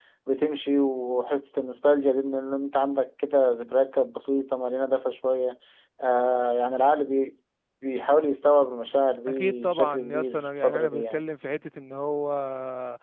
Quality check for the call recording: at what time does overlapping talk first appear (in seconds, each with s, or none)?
9.3 s